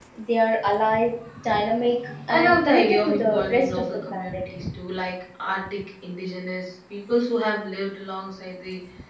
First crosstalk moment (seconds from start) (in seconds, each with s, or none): 2.3 s